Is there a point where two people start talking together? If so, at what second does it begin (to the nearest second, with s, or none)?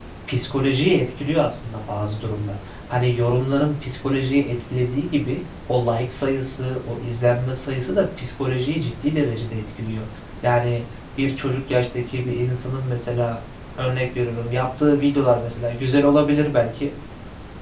none